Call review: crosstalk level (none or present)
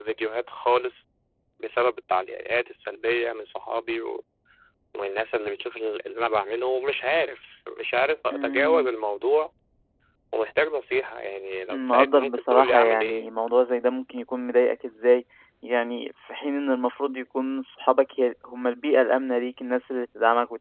present